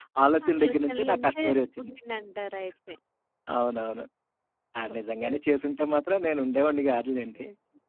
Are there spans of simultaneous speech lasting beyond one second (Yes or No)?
Yes